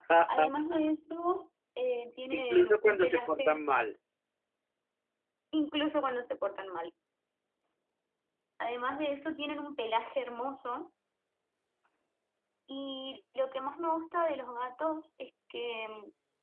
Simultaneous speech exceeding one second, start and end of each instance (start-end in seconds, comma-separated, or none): 2.3-3.6